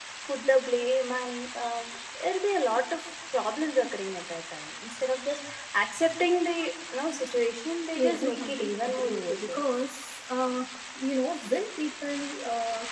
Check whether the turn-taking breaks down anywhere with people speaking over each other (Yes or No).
Yes